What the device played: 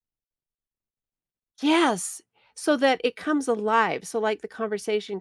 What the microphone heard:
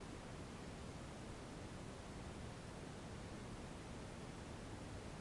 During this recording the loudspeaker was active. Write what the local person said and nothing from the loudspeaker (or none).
none